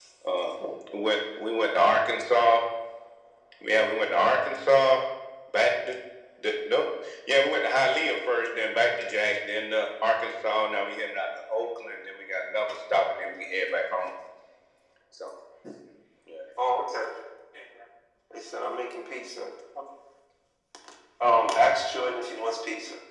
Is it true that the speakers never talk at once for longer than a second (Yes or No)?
Yes